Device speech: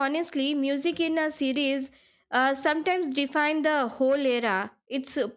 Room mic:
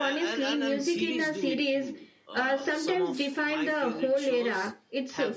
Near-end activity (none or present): present